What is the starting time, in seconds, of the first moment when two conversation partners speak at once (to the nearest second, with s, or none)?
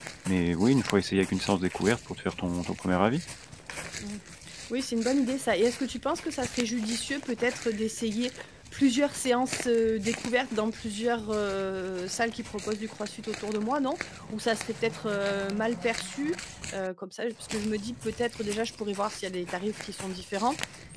none